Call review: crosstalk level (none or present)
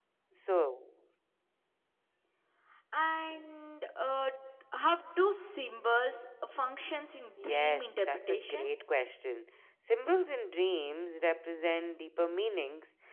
present